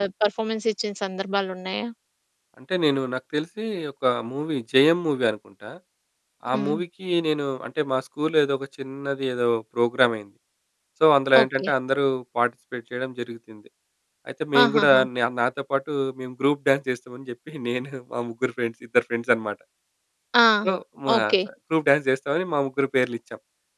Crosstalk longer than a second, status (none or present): none